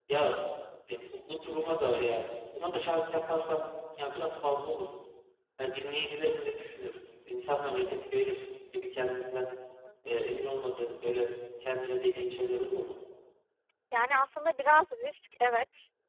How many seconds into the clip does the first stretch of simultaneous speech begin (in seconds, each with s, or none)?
none